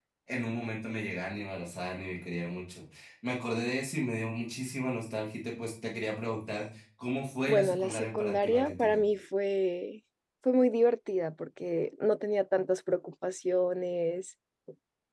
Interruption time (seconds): 7.5 s

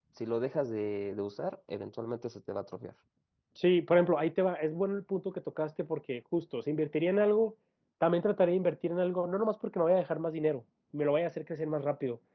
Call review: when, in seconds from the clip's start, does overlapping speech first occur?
none

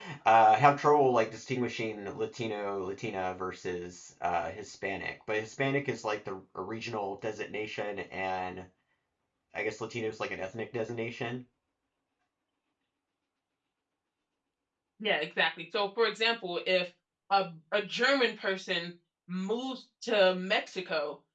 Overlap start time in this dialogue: none

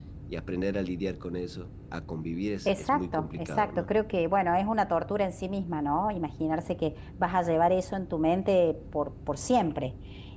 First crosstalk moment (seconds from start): 2.6 s

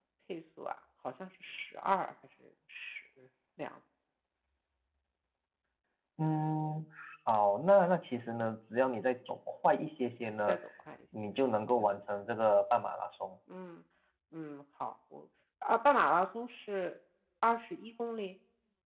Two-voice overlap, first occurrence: none

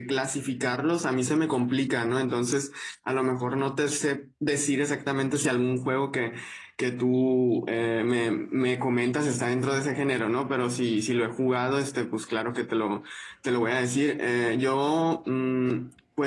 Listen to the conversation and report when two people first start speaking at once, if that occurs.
none

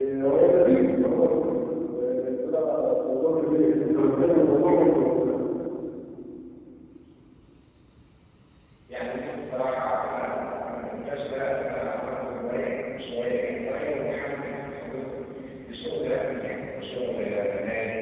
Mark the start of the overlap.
none

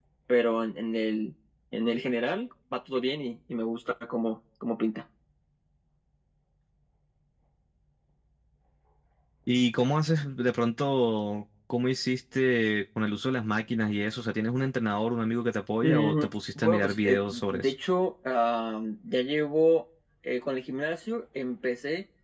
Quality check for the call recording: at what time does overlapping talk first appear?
15.8 s

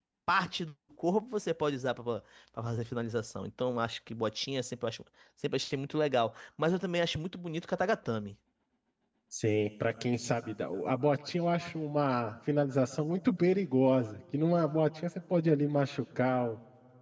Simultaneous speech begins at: none

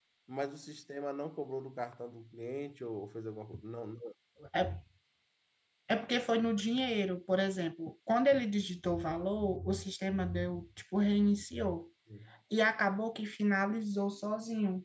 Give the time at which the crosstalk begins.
none

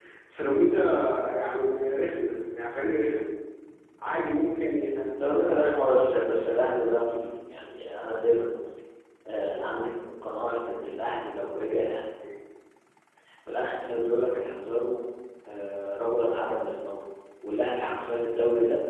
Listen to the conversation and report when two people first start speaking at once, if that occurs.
none

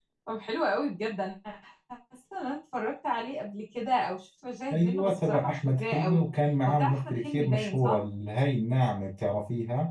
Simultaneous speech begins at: 4.7 s

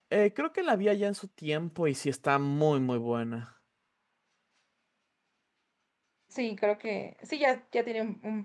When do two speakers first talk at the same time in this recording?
none

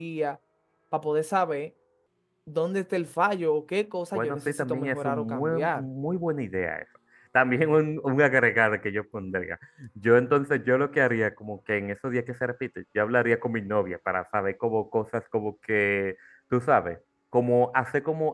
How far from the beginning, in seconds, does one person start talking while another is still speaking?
4.1 s

